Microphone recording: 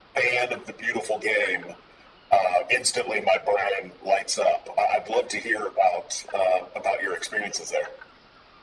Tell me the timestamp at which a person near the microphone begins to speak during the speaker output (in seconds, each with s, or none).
none